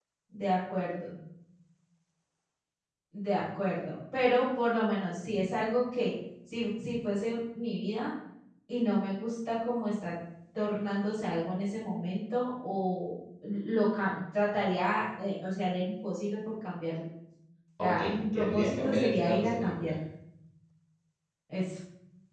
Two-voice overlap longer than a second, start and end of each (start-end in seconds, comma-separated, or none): 17.8-19.9